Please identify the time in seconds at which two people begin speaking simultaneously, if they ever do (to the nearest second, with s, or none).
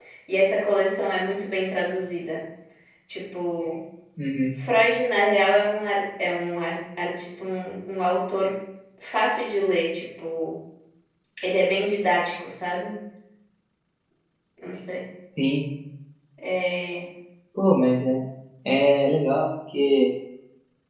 none